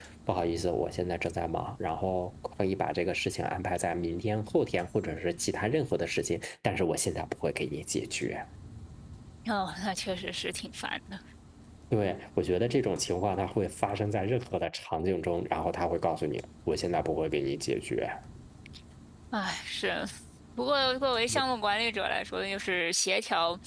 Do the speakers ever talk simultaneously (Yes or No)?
No